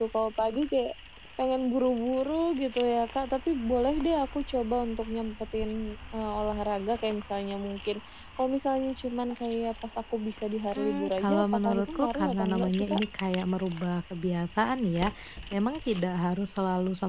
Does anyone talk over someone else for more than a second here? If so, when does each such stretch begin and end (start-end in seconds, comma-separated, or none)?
10.8-13.0